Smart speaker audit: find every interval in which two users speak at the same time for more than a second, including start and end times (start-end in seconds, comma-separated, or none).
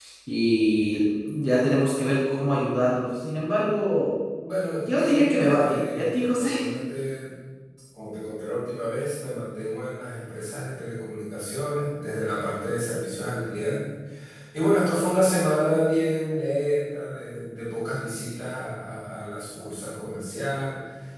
4.8-6.5